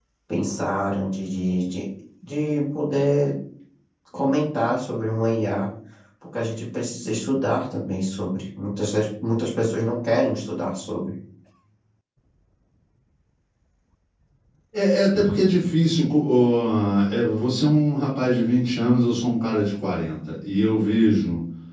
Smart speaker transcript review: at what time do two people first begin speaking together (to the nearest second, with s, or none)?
none